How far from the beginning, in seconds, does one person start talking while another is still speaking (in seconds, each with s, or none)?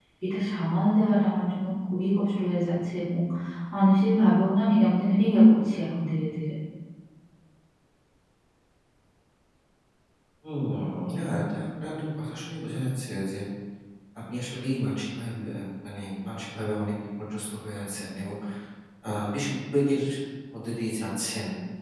none